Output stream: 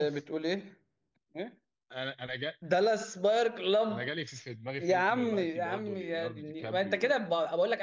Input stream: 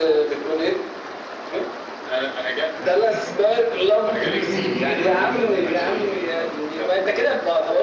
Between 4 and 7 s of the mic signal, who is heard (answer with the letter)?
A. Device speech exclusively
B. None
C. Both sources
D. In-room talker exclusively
C